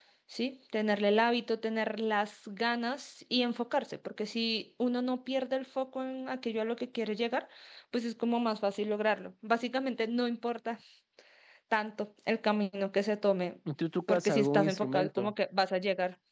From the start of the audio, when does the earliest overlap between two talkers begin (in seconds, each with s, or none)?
14.1 s